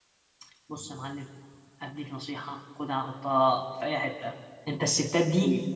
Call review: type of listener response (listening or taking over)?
listening